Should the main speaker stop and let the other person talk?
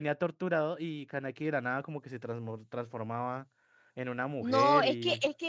Yes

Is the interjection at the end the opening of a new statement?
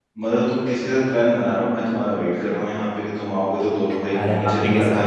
Yes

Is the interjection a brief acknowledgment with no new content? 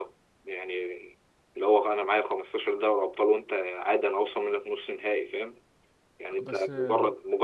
Yes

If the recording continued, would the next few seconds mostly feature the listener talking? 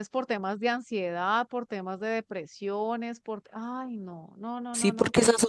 Yes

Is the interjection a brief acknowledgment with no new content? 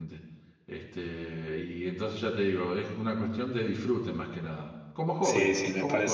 No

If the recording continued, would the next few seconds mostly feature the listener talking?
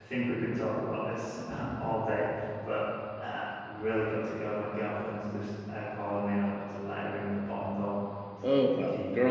Yes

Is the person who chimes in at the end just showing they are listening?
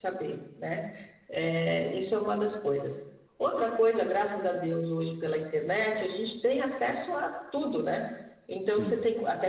Yes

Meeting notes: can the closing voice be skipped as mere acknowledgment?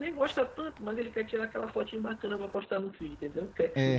Yes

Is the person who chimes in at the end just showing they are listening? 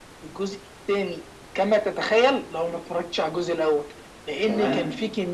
Yes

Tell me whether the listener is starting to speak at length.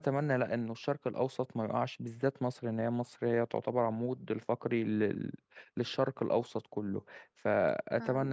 Yes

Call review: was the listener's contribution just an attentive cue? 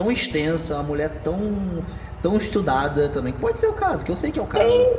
No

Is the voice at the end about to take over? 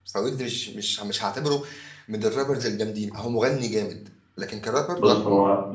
Yes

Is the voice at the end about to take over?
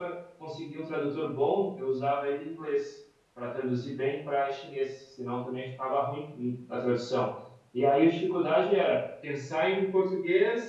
No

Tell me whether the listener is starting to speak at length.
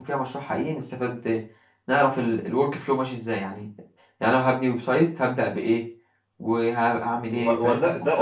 Yes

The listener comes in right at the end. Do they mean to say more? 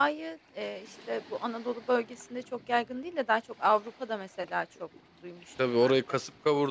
Yes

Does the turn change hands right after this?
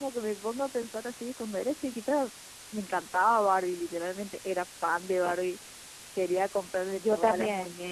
No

